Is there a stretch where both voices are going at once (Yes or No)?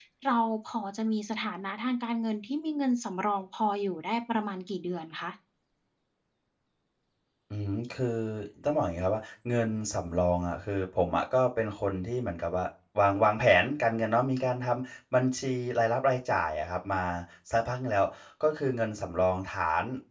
No